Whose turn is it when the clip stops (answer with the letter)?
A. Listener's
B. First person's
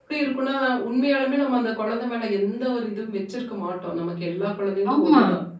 B